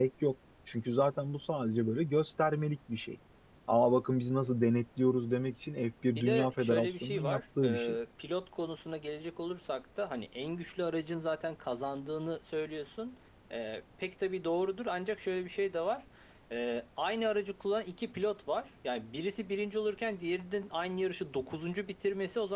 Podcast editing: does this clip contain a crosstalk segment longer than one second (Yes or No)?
Yes